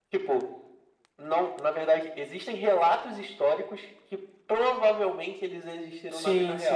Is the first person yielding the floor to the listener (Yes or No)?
Yes